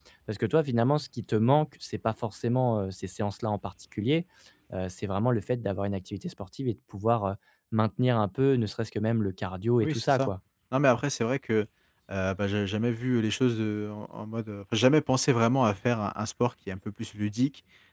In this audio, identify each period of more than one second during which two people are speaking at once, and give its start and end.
none

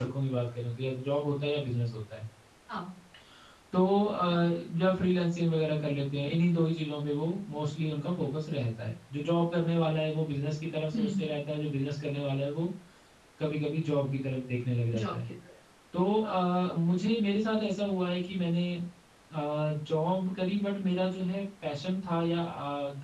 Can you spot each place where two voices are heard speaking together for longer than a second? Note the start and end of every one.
none

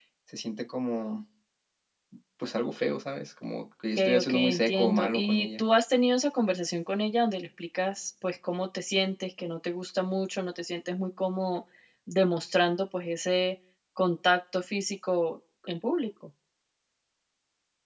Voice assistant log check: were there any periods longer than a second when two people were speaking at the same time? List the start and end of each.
4.0-5.6

